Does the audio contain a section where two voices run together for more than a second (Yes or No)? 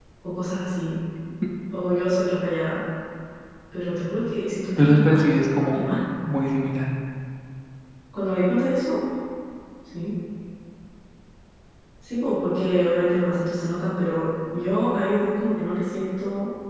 No